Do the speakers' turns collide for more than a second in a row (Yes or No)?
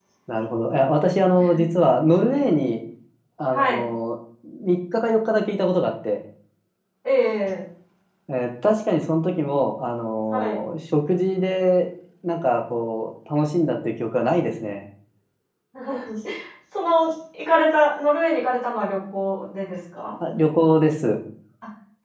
No